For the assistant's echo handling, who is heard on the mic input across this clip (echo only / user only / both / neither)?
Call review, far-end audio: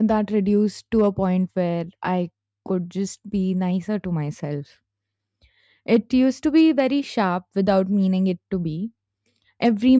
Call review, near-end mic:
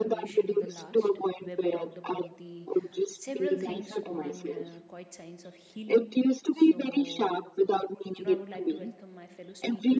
both